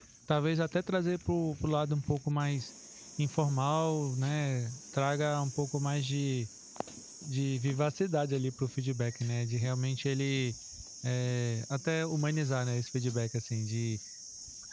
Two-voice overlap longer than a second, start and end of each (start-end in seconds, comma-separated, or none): none